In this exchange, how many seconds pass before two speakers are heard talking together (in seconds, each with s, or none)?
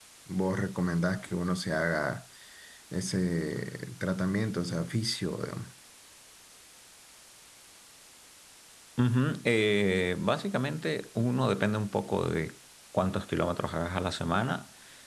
none